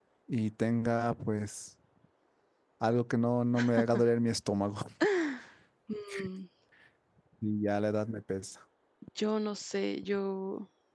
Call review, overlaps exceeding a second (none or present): none